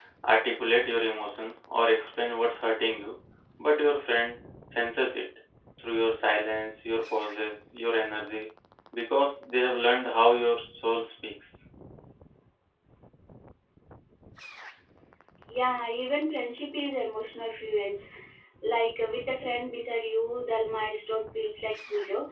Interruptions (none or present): none